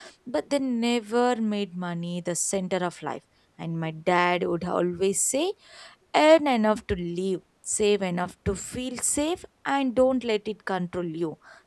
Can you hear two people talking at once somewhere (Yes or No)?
No